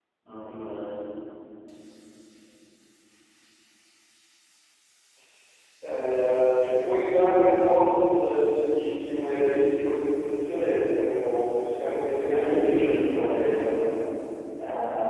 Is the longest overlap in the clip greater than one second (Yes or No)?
Yes